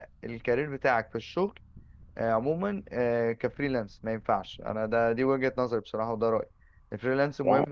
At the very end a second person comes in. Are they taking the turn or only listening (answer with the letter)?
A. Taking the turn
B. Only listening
B